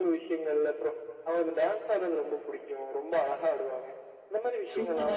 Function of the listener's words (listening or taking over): taking over